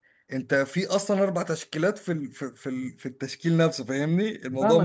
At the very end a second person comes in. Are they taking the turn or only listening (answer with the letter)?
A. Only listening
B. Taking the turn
B